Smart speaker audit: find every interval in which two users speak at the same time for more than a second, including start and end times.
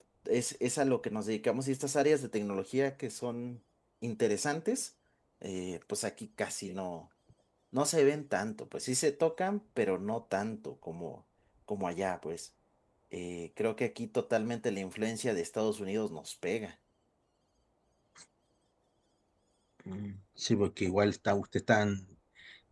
none

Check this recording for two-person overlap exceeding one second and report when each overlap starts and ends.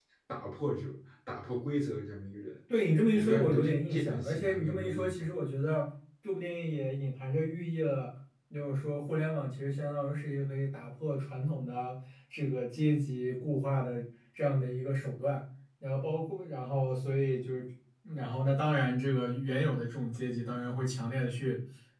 3.1-5.2

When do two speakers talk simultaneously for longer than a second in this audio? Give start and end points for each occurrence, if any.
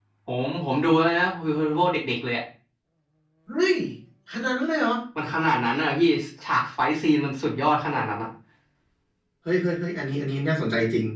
none

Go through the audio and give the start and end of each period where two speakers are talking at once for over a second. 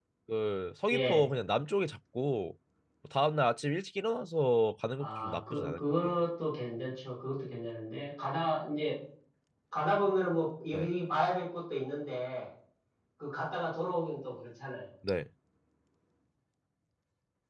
5.0-6.2

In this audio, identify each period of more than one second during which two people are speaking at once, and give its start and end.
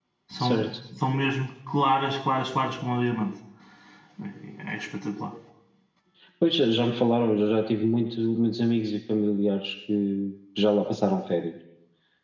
none

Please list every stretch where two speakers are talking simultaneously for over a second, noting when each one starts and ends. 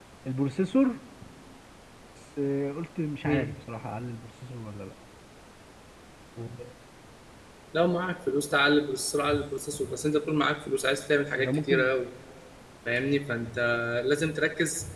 none

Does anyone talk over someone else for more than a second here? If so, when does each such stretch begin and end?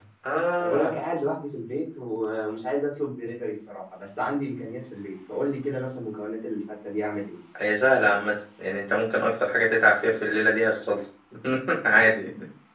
none

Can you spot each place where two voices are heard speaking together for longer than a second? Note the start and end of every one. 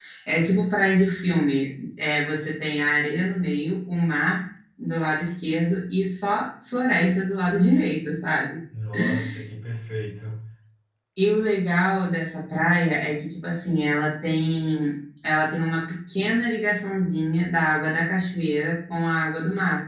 none

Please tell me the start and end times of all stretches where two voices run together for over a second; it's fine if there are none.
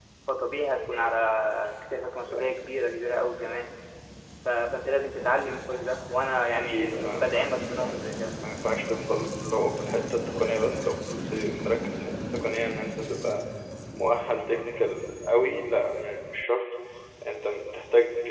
6.5-8.2

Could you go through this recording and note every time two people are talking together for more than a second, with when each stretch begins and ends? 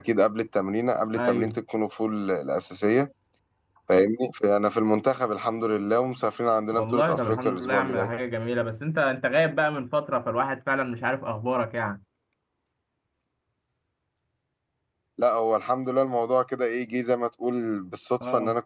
6.7-8.1

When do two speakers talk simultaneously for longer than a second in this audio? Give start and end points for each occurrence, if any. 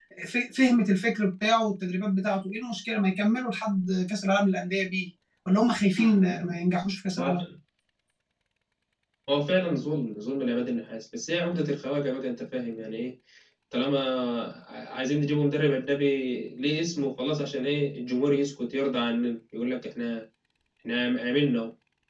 none

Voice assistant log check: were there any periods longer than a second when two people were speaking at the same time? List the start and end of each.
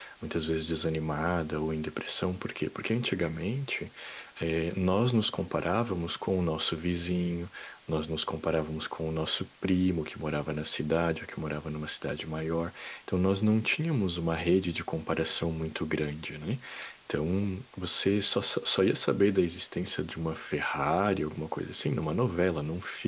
none

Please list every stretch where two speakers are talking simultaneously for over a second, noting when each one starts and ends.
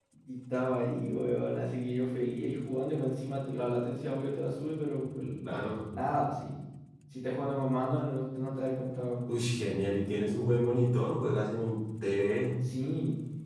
none

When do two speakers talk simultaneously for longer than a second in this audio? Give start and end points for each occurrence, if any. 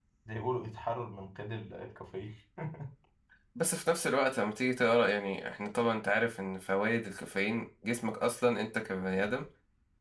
none

